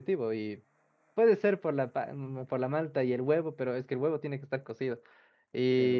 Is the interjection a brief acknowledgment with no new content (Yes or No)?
Yes